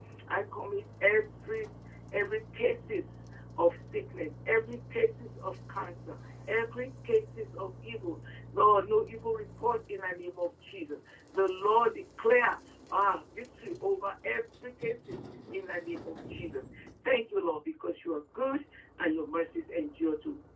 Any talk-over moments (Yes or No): No